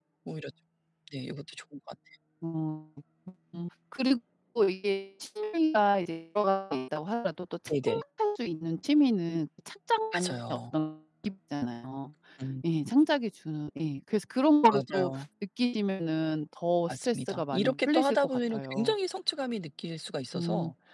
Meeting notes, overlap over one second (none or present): present